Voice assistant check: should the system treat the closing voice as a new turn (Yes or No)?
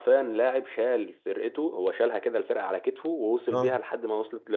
No